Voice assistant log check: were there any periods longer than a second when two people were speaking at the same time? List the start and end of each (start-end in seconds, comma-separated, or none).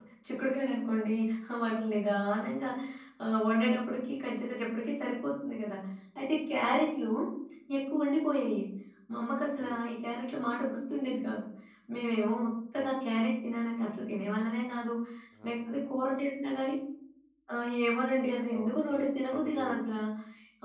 18.6-19.9